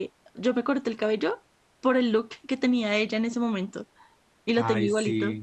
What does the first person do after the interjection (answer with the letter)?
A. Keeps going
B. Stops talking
B